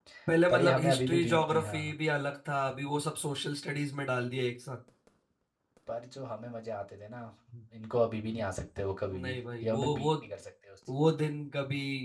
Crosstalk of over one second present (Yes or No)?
Yes